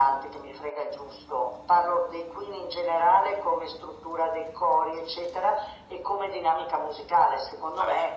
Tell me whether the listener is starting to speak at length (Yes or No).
No